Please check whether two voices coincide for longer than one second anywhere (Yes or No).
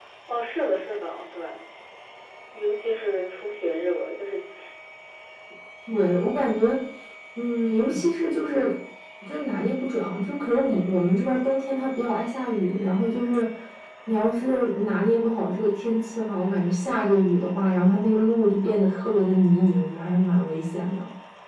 No